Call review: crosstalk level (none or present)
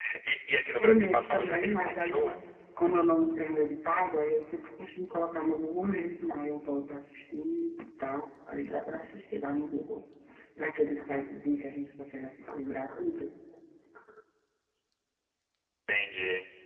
present